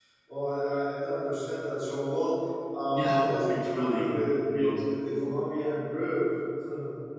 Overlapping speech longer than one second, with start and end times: 2.9-4.1

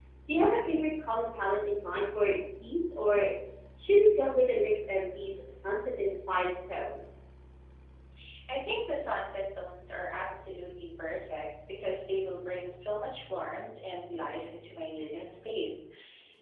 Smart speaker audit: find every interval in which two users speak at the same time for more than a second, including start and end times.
none

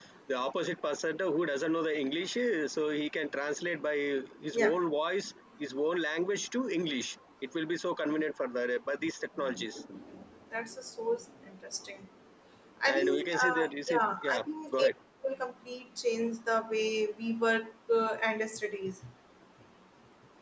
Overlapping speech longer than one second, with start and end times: 12.8-14.9

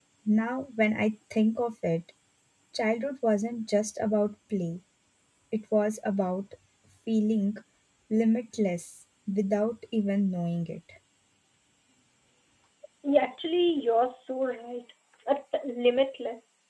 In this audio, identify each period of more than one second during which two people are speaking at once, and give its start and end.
none

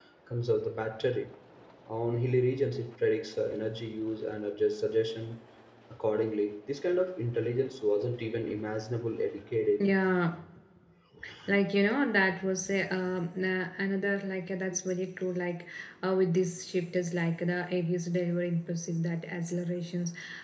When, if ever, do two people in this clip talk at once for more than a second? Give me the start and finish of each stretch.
none

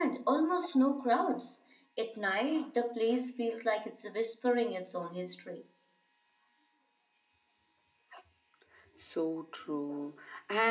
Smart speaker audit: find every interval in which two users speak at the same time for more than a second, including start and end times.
none

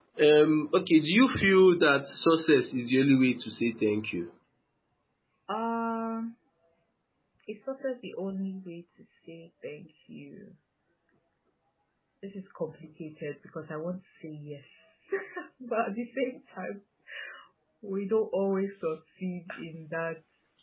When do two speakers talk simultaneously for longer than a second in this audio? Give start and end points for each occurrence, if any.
none

